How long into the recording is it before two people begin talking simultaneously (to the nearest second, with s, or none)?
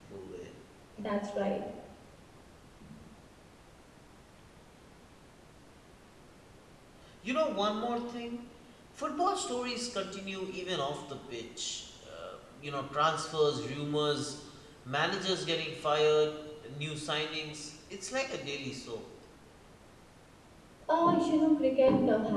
none